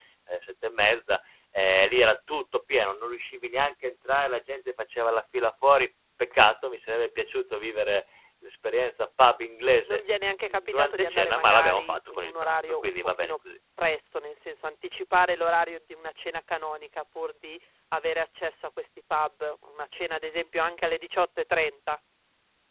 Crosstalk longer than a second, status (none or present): present